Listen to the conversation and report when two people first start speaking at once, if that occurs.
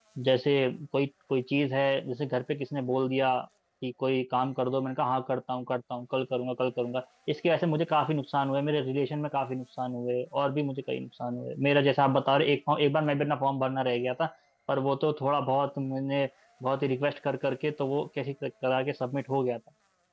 none

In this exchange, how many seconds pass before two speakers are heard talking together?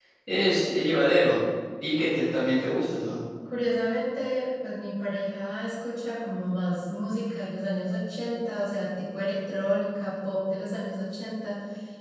none

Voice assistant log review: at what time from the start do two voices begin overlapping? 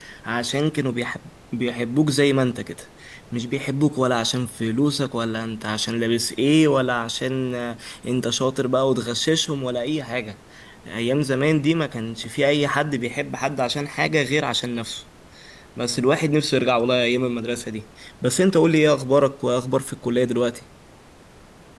none

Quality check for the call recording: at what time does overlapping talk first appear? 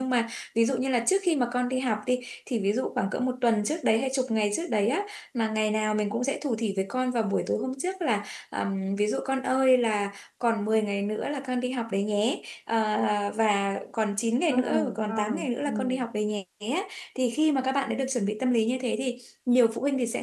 14 s

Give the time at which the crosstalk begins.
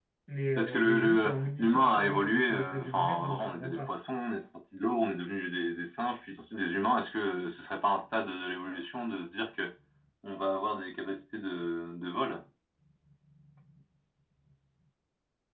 1 s

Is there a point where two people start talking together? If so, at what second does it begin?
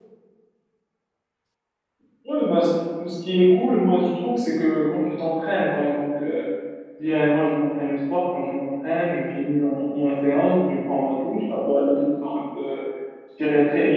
none

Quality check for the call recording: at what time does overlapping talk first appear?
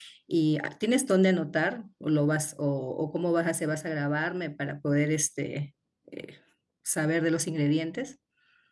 none

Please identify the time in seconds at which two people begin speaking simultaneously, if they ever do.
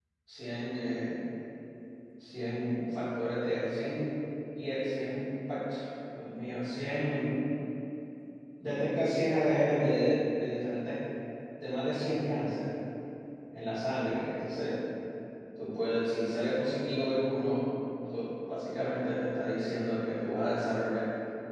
none

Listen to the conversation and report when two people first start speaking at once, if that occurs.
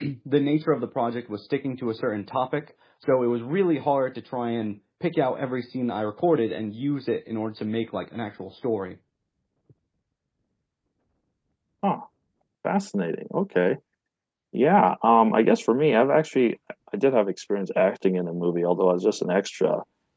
none

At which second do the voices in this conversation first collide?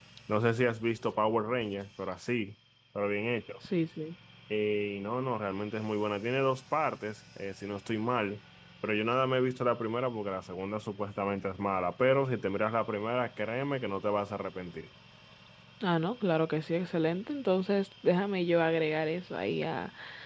none

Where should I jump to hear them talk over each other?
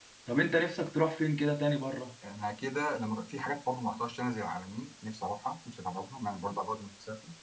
none

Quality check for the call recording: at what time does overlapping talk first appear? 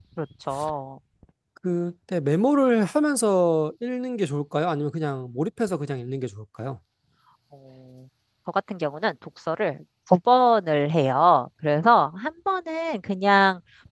none

